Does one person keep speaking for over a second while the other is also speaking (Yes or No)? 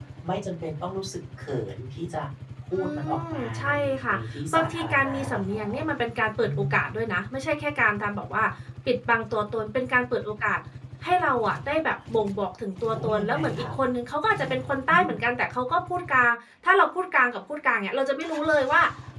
Yes